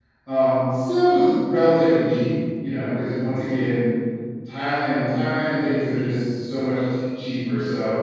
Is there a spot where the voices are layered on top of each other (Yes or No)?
No